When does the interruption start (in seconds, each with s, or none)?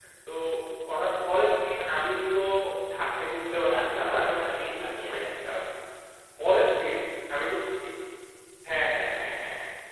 3.8 s